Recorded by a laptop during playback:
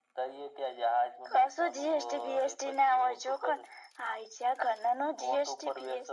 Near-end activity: none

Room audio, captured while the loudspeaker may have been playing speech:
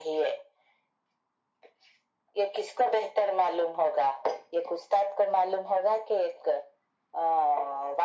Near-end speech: none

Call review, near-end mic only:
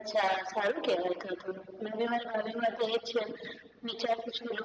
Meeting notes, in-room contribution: none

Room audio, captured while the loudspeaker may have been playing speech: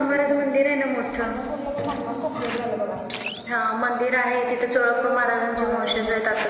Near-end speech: present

